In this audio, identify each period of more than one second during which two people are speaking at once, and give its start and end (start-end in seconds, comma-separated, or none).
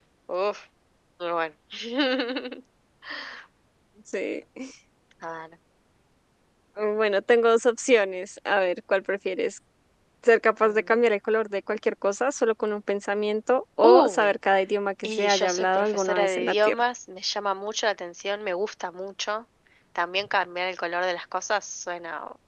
15.0-16.8